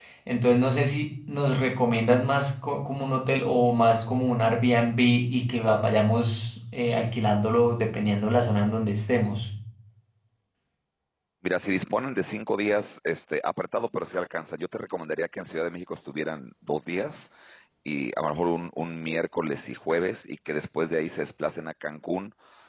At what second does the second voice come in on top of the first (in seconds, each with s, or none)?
none